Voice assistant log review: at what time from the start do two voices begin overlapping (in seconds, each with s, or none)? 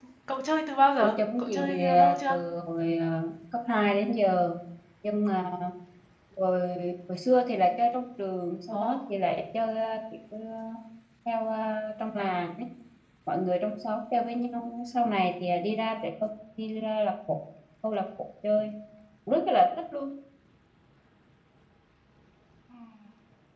1.0 s